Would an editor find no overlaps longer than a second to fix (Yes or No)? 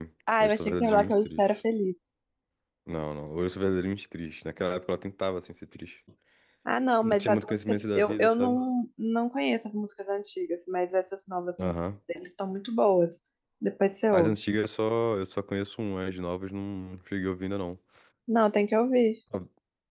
No